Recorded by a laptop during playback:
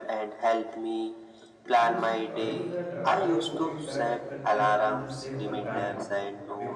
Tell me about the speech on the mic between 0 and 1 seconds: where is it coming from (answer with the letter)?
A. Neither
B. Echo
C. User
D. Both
B